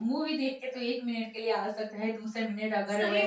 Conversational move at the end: taking over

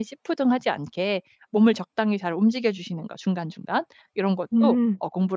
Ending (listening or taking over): listening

